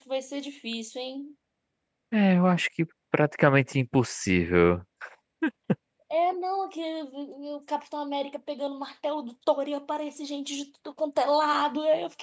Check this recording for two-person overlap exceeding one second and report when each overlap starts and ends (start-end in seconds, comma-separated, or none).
none